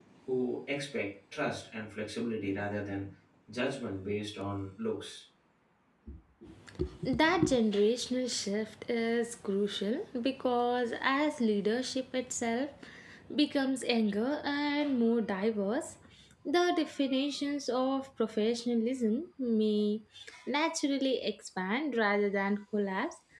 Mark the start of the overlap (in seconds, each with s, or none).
none